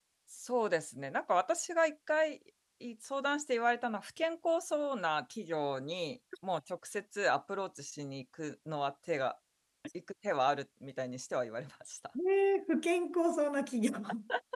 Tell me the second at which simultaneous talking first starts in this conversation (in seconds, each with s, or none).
none